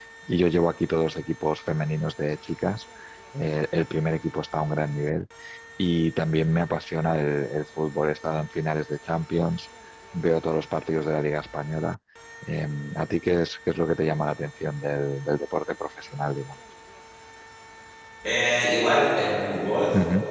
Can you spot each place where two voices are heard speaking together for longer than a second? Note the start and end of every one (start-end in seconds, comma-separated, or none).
none